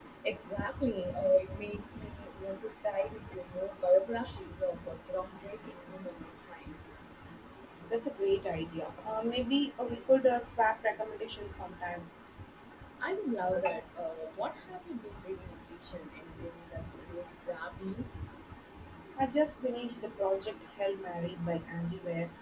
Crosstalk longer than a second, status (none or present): none